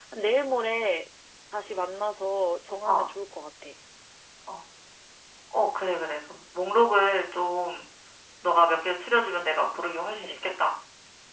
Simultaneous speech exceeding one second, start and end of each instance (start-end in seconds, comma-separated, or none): none